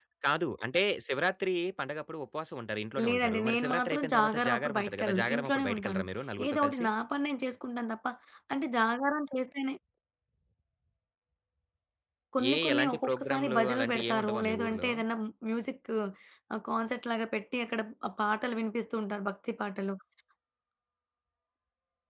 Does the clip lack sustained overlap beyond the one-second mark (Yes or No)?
No